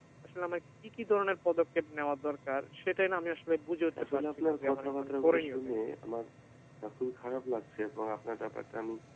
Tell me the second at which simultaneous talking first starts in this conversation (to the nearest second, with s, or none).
4 s